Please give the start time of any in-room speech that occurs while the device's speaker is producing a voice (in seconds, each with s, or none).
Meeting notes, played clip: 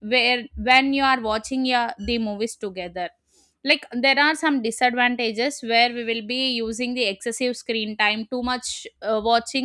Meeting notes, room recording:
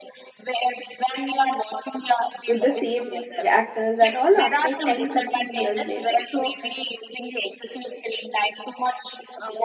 2.5 s